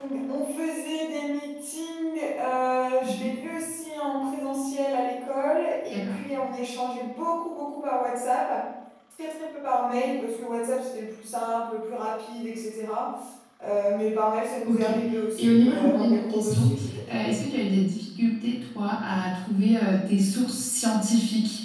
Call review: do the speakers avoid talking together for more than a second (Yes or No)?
No